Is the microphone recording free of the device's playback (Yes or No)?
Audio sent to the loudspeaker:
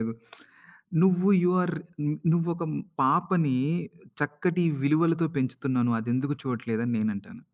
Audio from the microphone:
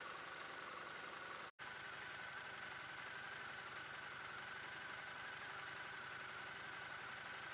Yes